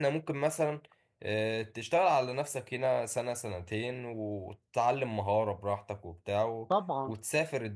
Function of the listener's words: listening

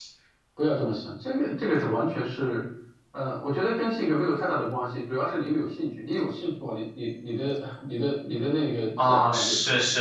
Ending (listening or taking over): taking over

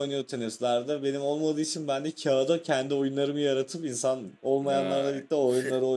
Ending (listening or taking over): listening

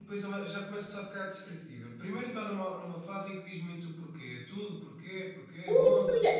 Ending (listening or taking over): taking over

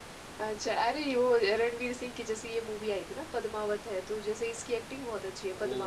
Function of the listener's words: taking over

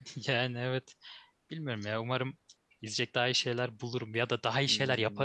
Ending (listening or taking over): taking over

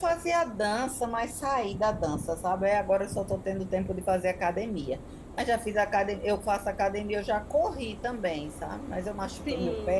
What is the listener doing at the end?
listening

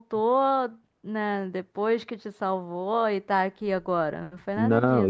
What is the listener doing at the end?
taking over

